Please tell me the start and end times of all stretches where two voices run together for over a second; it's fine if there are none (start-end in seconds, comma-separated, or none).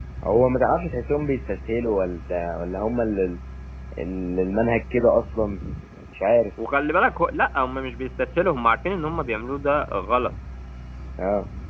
none